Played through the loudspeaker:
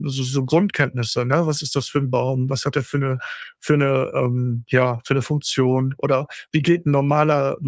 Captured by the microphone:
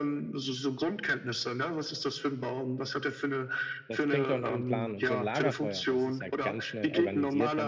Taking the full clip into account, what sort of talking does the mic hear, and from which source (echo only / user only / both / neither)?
both